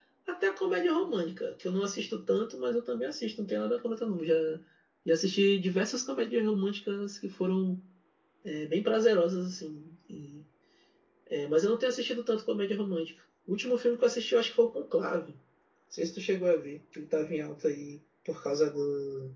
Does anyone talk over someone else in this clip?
No

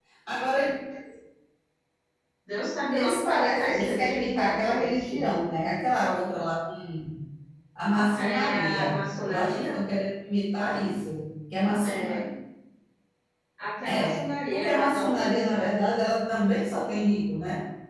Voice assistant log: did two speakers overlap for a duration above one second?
Yes, from 2.9 s

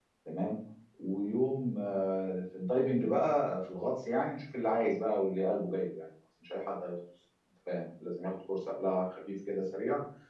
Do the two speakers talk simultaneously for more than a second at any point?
No

